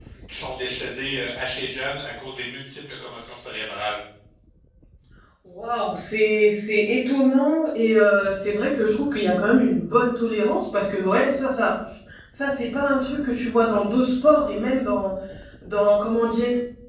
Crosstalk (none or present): none